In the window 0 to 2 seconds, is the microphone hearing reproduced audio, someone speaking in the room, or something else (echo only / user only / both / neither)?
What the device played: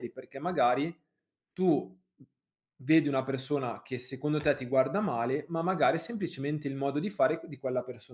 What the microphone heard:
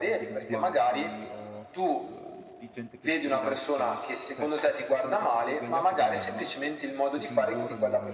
both